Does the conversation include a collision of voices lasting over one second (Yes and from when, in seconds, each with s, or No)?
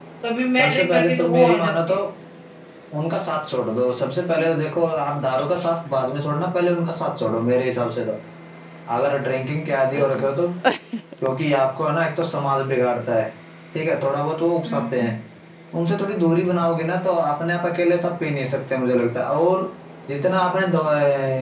Yes, from 0.6 s